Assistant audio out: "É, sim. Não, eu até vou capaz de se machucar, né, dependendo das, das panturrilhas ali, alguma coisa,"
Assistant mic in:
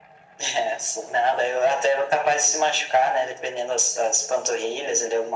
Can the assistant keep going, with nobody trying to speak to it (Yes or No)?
Yes